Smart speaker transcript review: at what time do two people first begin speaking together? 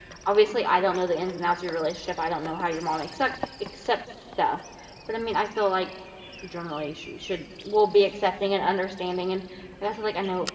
none

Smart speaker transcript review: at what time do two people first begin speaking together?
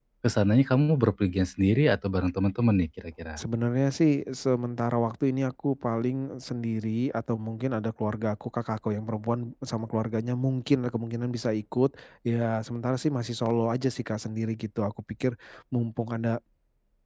none

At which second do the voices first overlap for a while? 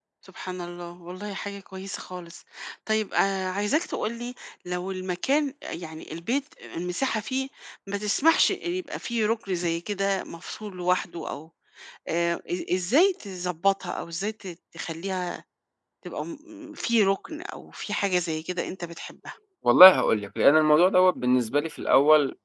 none

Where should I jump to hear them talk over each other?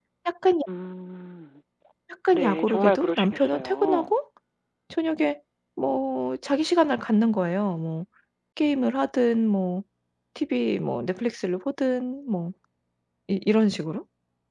2 s

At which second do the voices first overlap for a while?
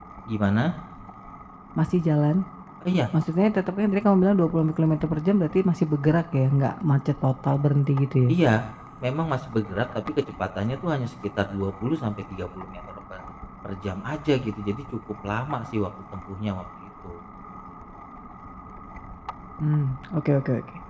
none

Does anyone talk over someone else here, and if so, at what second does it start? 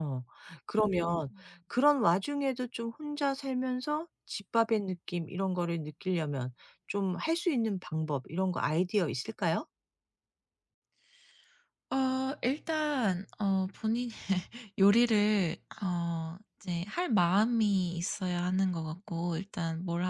none

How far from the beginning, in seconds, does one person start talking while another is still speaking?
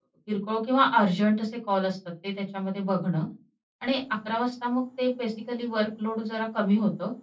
none

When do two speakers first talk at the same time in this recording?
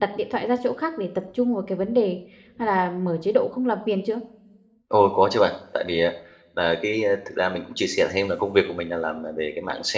none

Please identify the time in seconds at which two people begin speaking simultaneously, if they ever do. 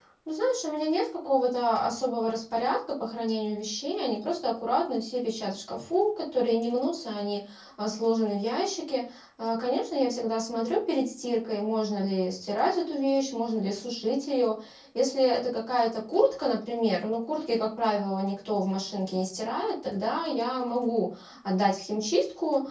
none

